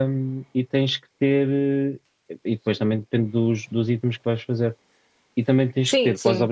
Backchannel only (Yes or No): Yes